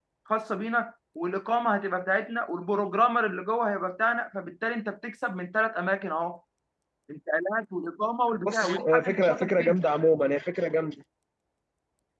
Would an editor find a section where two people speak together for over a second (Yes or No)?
Yes